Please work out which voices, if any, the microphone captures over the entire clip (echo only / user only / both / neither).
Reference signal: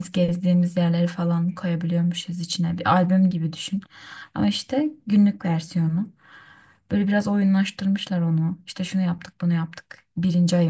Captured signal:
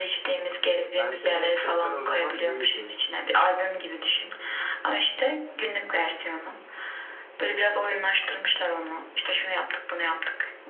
both